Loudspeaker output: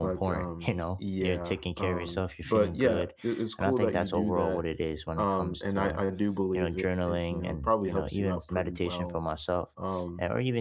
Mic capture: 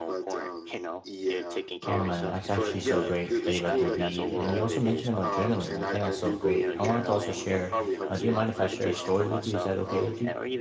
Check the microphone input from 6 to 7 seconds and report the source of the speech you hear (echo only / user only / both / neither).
both